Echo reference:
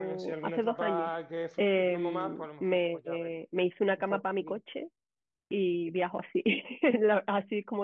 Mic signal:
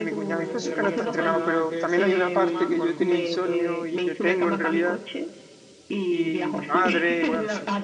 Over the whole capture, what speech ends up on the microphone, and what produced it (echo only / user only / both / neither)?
both